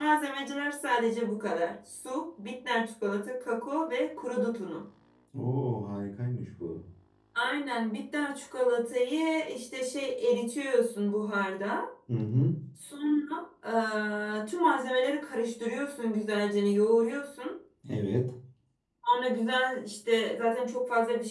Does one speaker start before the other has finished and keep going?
No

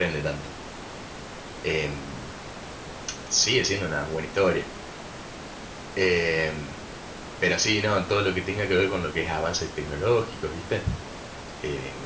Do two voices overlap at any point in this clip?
No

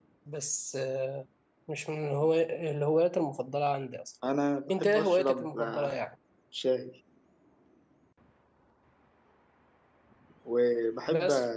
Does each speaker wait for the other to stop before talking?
No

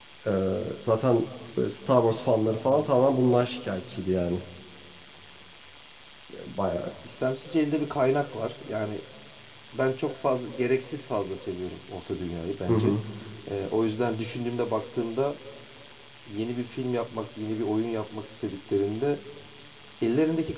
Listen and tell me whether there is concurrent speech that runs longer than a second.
No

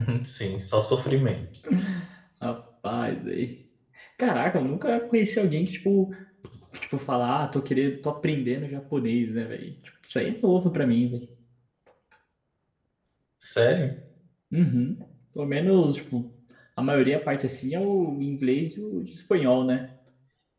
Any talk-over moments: No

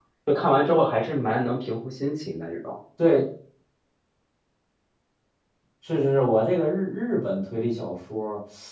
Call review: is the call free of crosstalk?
Yes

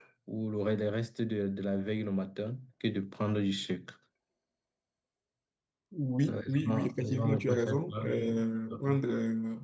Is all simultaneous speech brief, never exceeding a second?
No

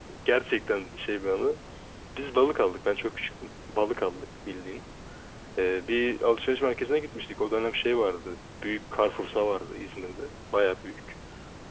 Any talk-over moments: No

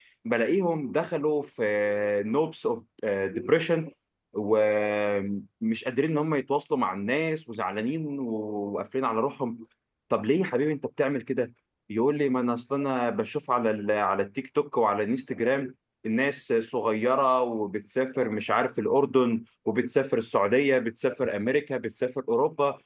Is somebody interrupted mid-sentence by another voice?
No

